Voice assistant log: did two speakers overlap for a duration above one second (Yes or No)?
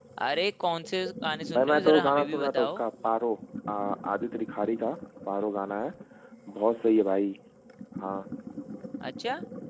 Yes